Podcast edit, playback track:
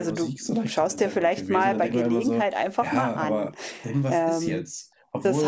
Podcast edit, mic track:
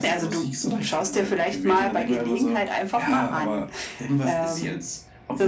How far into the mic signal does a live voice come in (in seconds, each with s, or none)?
none